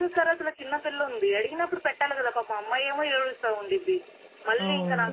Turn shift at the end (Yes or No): No